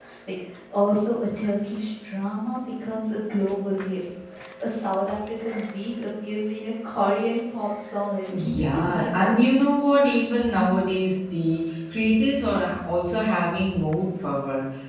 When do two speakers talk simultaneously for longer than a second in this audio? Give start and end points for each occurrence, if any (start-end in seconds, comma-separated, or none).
8.4-9.8